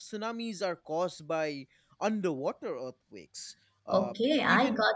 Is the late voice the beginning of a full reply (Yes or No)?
Yes